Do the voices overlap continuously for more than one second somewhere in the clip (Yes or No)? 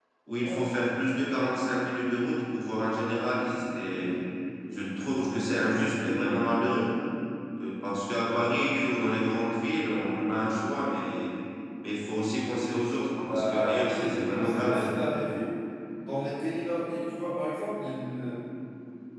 Yes